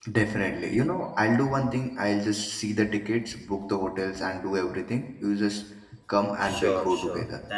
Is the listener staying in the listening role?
No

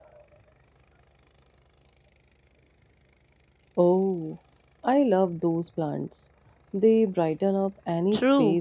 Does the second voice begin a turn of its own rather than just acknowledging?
Yes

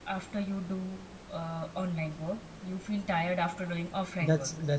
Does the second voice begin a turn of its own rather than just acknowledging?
Yes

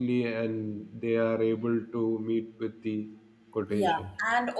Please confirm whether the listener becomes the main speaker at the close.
Yes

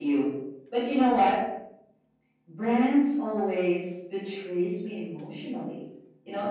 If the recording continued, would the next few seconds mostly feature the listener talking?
No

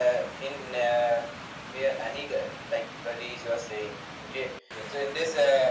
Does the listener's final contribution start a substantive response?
No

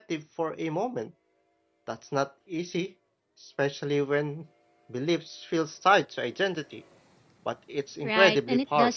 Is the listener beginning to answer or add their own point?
Yes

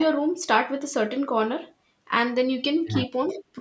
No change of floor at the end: Yes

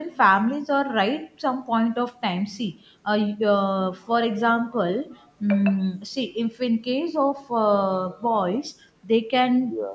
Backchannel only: Yes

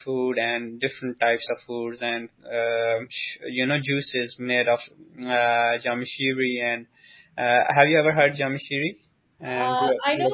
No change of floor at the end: No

